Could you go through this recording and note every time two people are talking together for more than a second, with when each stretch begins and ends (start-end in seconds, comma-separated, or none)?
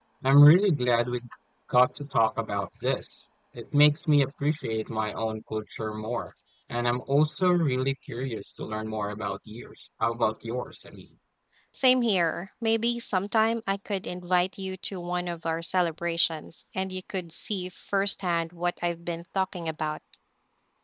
none